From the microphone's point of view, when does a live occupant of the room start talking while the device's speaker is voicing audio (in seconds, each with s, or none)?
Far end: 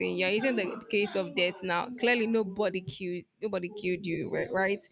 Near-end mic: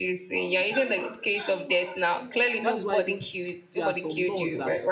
2.6 s